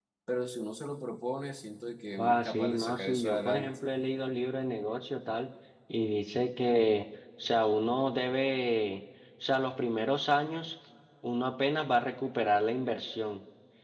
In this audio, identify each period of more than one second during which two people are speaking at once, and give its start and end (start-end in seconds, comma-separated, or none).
2.2-3.7